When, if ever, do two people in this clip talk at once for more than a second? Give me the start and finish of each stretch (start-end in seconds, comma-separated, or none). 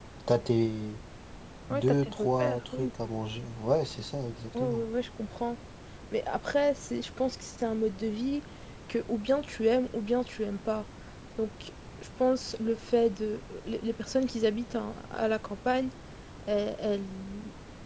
1.7-2.9